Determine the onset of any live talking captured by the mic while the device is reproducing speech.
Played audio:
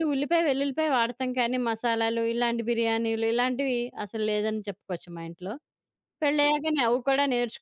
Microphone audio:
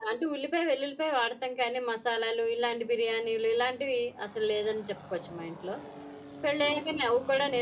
none

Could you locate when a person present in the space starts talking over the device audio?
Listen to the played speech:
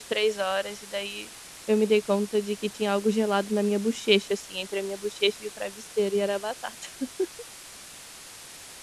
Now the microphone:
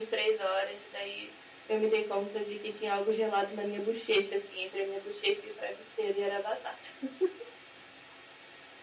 none

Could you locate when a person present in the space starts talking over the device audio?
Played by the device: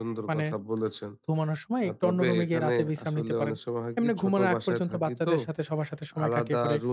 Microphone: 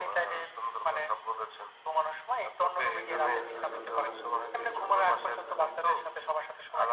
2.9 s

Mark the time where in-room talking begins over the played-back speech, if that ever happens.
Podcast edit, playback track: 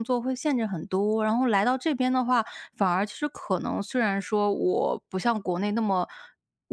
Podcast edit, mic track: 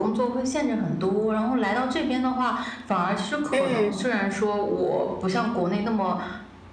3.5 s

